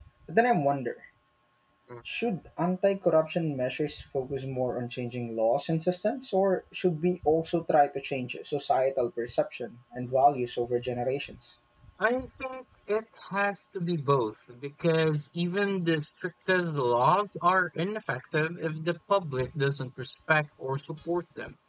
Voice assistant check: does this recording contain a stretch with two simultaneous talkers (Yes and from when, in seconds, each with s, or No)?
No